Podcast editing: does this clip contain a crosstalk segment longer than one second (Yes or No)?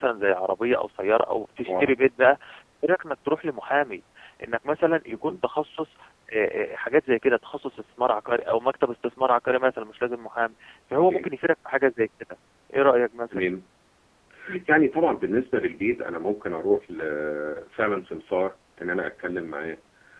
No